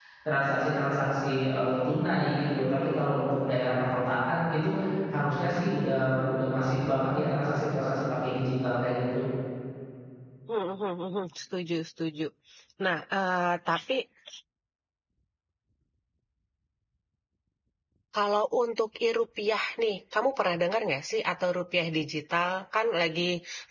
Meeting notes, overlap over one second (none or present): none